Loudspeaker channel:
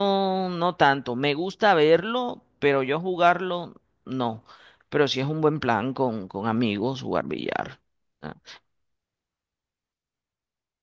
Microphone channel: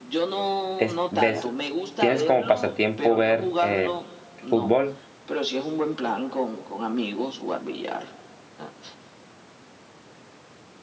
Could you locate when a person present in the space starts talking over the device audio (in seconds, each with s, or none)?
0.8 s